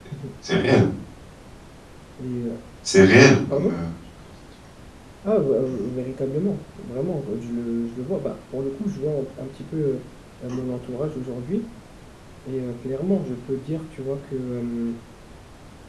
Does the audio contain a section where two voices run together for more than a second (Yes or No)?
No